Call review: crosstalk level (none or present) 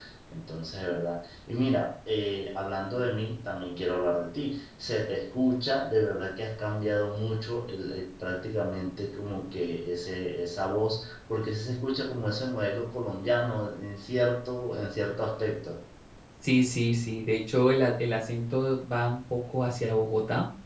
none